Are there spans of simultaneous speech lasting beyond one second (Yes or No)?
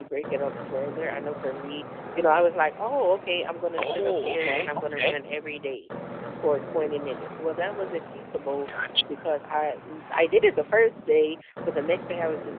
Yes